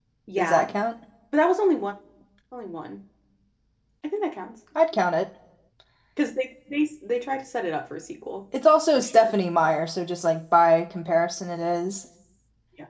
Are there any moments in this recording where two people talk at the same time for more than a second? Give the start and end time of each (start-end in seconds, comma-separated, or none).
none